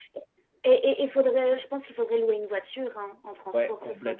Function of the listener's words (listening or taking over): taking over